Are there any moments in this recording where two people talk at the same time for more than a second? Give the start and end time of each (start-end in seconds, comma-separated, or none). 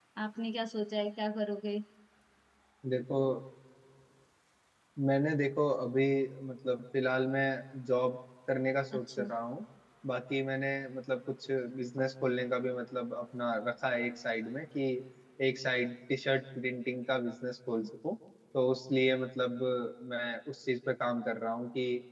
none